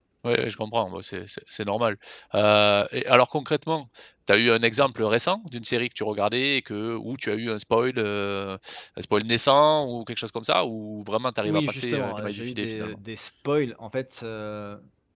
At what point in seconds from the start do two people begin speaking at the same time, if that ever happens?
11 s

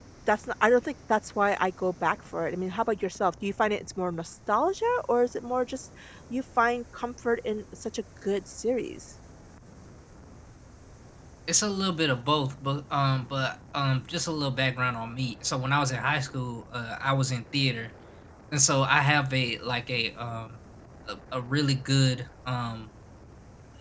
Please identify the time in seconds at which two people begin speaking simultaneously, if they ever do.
none

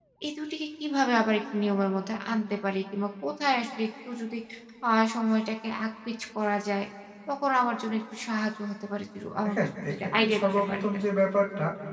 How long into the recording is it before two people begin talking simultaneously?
9 s

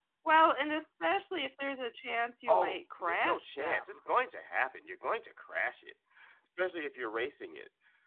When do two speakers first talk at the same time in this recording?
2 s

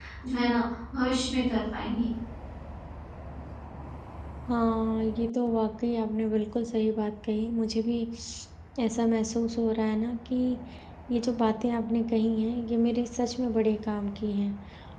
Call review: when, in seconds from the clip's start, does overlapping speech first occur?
none

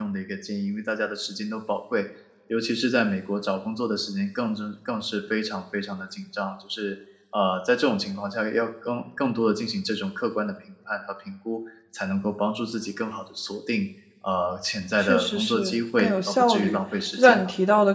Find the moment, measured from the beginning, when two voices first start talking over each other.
15 s

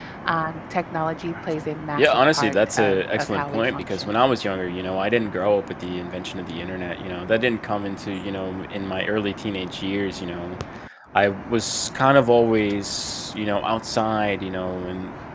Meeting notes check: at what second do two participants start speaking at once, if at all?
2 s

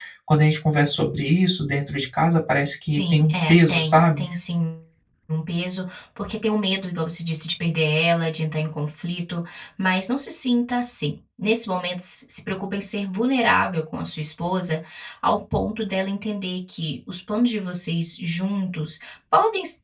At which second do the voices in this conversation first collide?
3 s

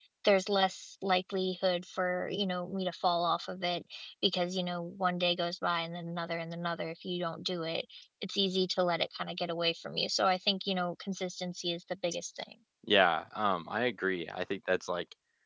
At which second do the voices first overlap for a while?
none

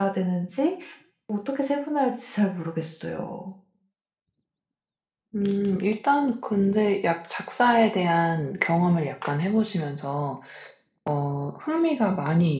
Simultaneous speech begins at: none

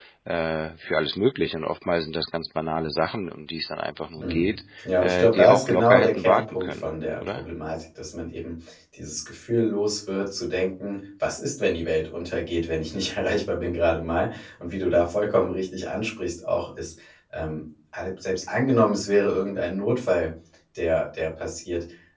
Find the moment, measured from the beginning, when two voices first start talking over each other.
4 s

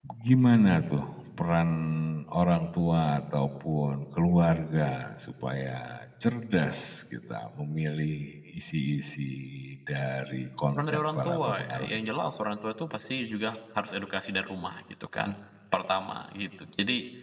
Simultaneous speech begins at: 11 s

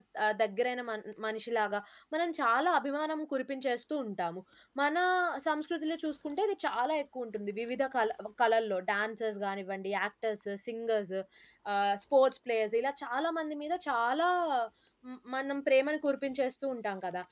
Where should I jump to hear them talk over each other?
none

